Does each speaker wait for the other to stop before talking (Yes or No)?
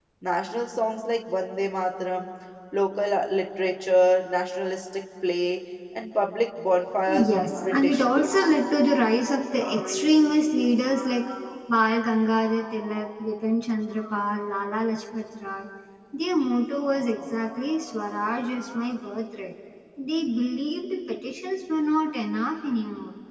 No